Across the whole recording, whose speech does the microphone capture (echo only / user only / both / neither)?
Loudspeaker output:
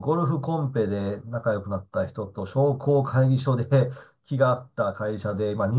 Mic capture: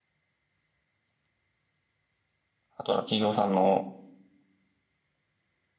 user only